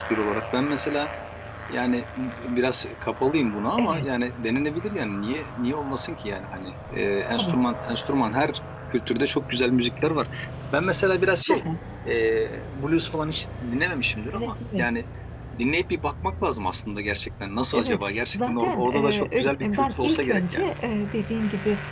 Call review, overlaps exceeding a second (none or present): present